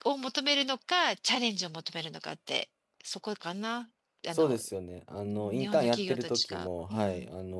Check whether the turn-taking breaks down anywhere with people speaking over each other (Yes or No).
Yes